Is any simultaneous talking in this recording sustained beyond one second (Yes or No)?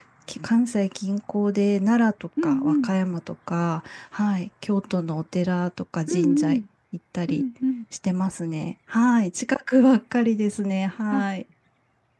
No